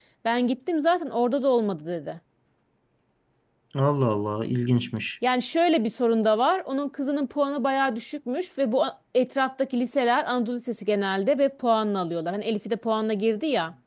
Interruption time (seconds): none

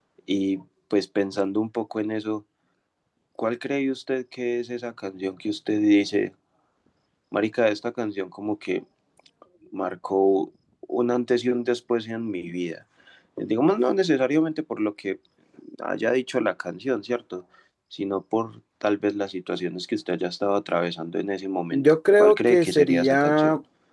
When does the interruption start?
21.7 s

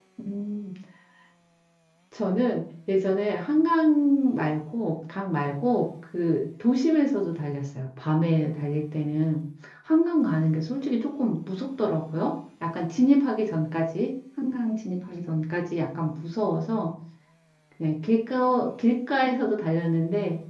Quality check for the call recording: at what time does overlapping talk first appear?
none

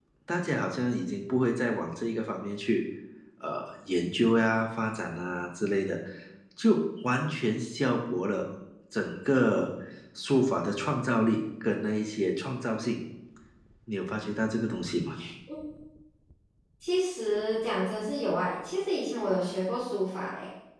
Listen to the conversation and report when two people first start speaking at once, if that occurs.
none

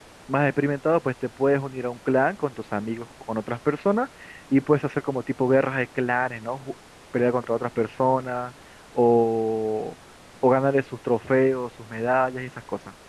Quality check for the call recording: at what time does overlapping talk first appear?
none

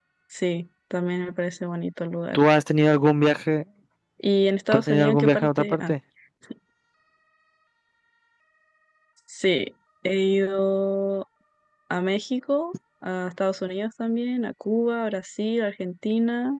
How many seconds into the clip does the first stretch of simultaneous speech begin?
4.7 s

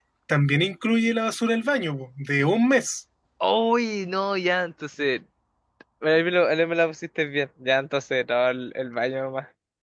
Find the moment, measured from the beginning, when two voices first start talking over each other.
none

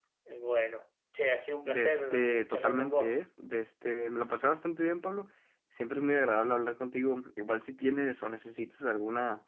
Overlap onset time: 1.6 s

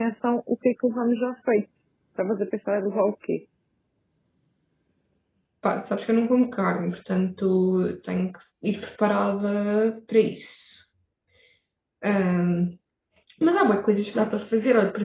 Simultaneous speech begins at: none

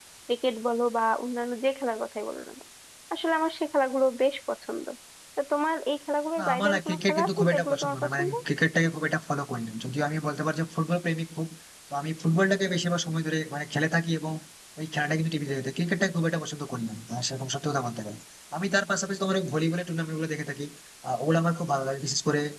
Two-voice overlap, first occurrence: 6.4 s

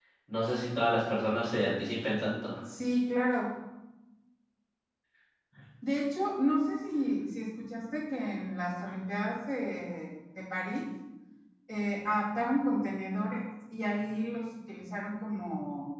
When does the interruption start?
none

